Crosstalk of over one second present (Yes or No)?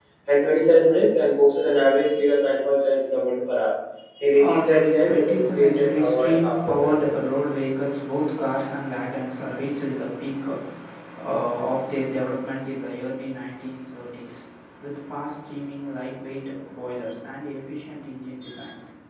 Yes